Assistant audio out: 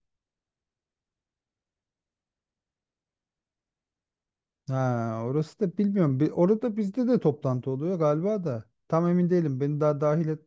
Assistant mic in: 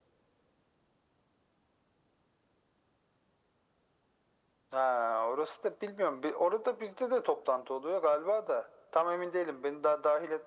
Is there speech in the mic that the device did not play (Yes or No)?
No